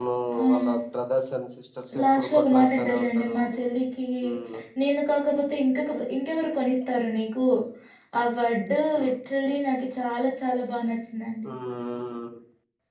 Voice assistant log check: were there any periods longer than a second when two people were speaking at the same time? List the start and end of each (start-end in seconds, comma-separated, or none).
2.0-3.4